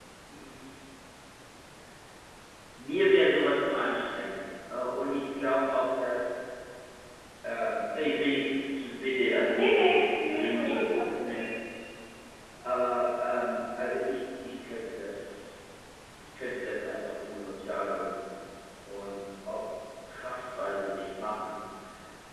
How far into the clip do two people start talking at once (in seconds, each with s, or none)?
9.5 s